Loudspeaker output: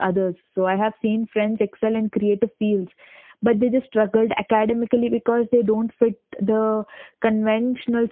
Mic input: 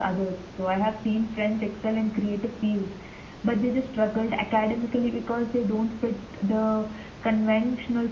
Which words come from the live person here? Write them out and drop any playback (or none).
none